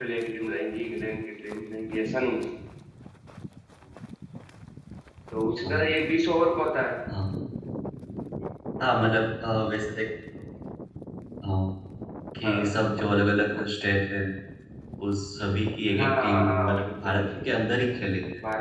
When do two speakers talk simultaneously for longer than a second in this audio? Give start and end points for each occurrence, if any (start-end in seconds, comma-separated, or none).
16.0-17.2